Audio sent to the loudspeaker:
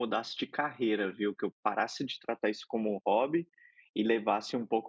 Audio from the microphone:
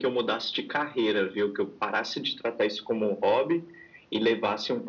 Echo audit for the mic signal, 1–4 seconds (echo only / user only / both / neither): echo only